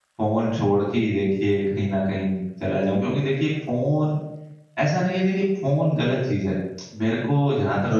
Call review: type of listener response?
listening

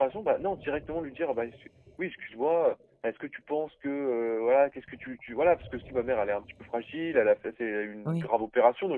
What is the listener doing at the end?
listening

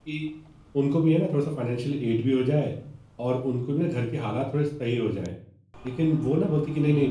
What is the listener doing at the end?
listening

